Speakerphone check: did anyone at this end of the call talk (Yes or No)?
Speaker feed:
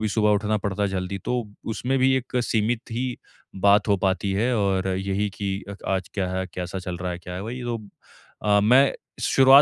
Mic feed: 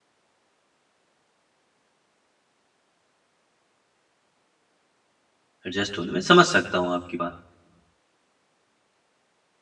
Yes